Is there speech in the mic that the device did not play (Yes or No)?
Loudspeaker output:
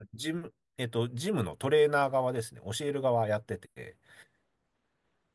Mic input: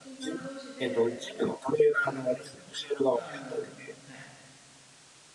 Yes